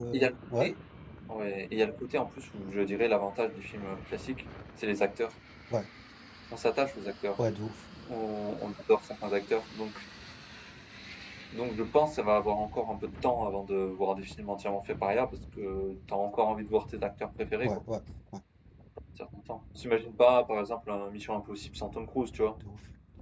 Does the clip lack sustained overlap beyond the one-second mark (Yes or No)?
Yes